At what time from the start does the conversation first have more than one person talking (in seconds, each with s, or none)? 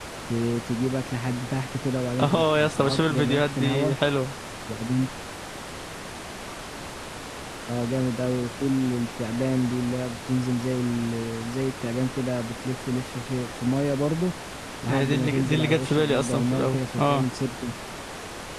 2.2 s